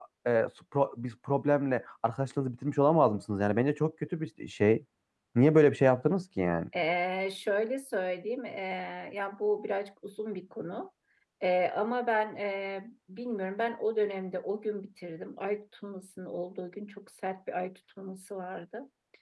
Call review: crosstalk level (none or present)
none